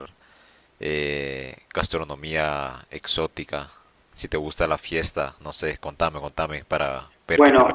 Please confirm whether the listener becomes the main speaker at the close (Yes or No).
Yes